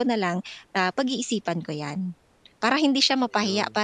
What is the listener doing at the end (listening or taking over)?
listening